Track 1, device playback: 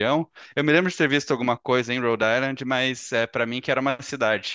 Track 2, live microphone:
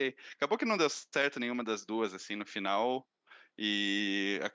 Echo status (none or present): none